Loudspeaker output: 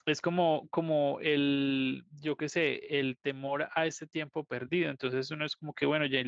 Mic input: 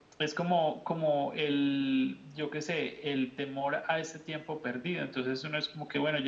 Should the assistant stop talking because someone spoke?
No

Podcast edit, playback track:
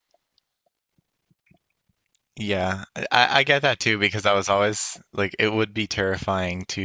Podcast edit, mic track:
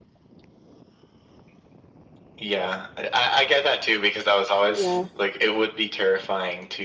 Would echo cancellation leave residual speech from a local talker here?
Yes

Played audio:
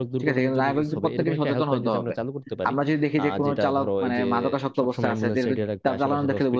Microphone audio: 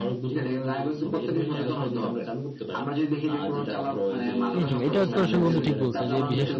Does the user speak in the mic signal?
Yes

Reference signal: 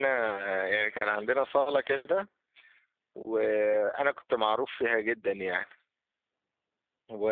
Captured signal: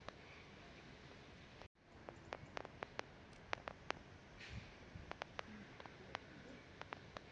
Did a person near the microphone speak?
No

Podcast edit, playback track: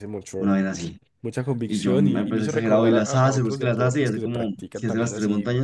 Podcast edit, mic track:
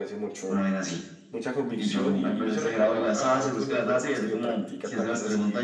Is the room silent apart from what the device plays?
Yes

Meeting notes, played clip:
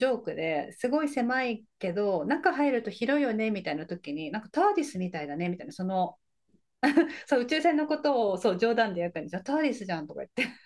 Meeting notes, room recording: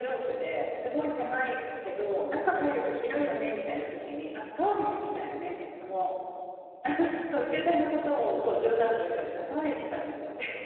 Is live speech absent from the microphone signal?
Yes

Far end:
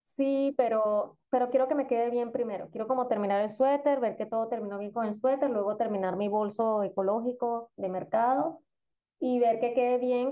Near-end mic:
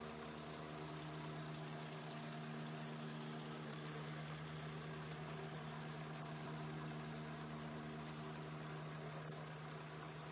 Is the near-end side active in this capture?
No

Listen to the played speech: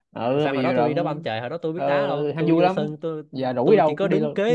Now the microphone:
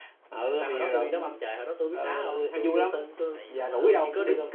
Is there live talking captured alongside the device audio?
Yes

